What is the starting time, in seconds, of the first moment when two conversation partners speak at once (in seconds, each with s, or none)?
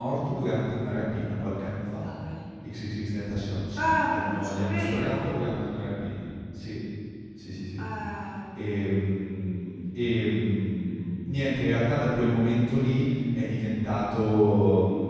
3.8 s